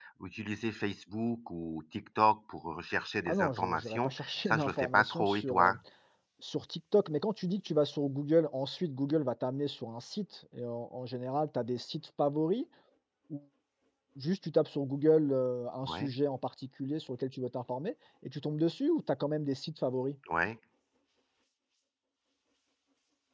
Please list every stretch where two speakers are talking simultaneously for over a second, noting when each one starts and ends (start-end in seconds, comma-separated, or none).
3.3-5.8